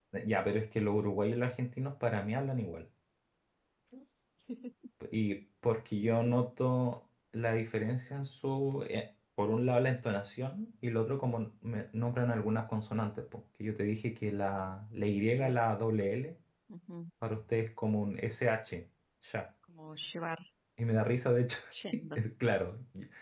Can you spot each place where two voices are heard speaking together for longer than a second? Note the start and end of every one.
none

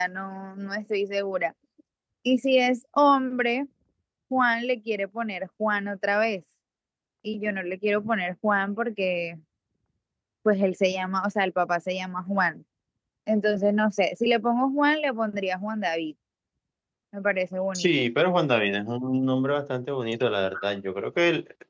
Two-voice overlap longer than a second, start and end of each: none

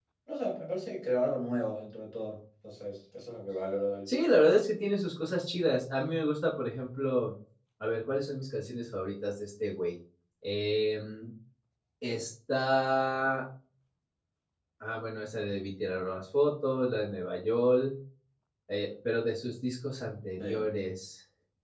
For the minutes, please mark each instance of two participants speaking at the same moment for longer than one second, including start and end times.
none

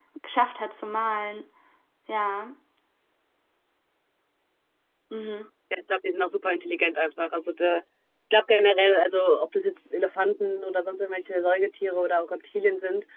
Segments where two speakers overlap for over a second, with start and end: none

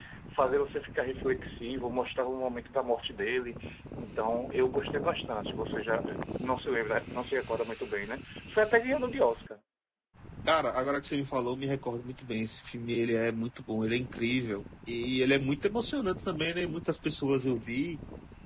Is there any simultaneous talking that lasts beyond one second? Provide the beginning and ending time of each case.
none

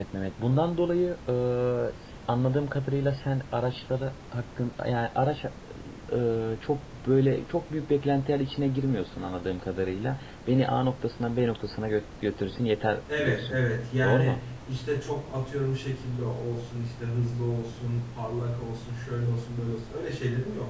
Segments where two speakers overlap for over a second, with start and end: none

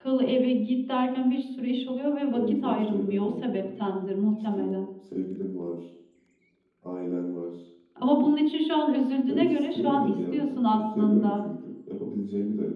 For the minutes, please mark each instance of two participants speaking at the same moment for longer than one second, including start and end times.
2.3-3.6, 9.3-11.4

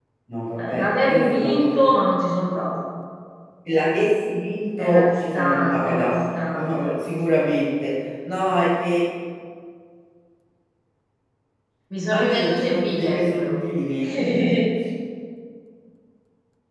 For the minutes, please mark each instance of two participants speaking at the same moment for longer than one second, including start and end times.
0.5-1.8, 4.9-6.2, 12.0-13.6

